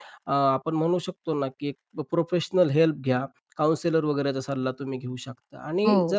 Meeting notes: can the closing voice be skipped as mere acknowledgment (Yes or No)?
Yes